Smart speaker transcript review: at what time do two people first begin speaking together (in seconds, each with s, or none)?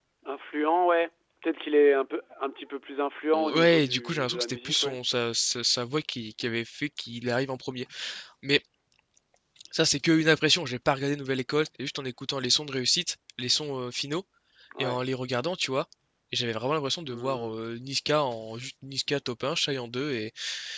3.3 s